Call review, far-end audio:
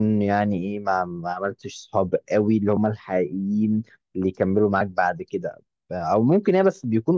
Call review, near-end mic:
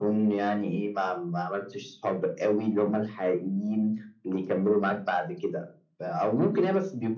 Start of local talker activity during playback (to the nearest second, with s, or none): none